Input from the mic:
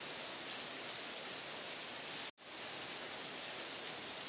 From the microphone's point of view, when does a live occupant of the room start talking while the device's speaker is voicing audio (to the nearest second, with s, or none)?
none